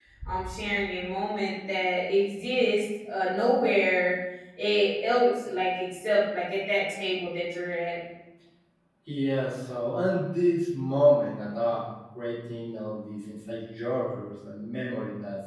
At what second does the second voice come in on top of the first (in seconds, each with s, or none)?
none